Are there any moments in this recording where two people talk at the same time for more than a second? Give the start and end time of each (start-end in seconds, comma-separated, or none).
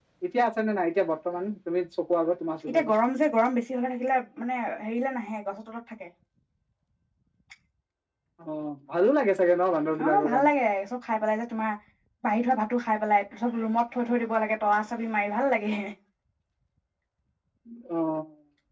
none